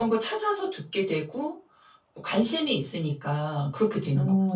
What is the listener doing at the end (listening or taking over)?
taking over